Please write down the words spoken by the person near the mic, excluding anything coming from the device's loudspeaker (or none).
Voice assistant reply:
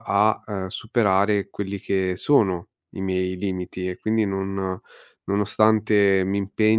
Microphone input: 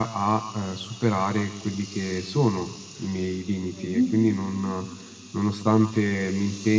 Mh-mh.